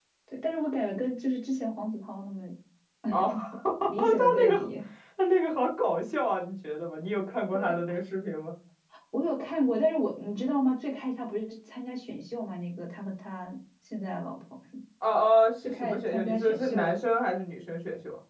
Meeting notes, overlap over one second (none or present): present